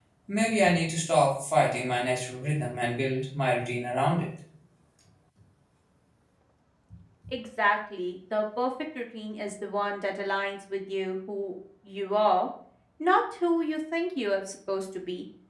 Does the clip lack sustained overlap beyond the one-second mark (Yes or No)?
Yes